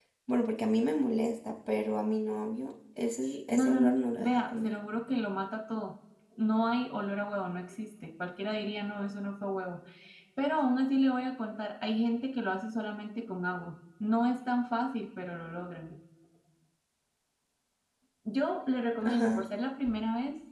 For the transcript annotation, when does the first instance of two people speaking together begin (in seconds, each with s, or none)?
3.5 s